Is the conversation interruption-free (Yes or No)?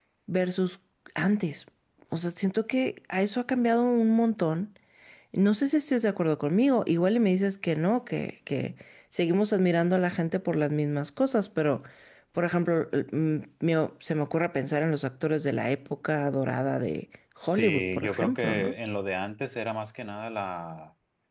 No